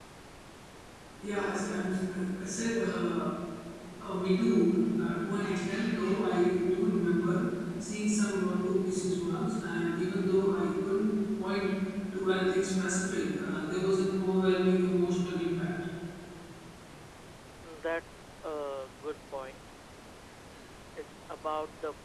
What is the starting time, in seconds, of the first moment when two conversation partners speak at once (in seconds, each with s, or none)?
none